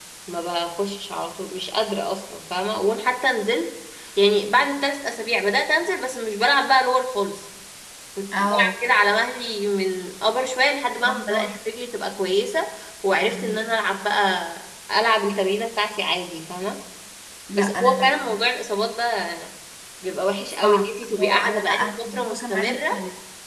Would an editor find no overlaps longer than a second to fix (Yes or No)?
No